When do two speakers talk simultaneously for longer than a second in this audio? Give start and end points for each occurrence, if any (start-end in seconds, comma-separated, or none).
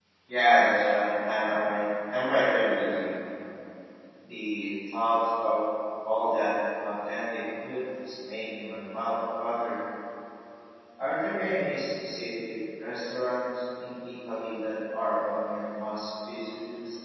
none